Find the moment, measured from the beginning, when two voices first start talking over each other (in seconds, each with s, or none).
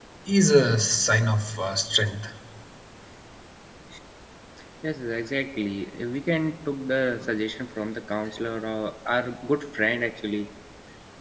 none